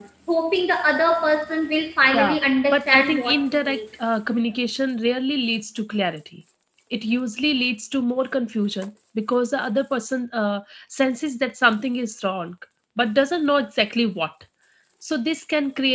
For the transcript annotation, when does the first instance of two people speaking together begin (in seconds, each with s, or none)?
2.1 s